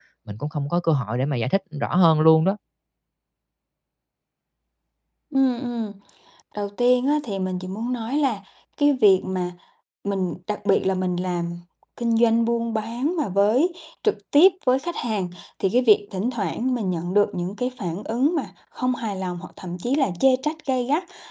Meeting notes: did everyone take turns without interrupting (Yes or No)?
Yes